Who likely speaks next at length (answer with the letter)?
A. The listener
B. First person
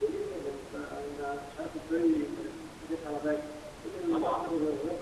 B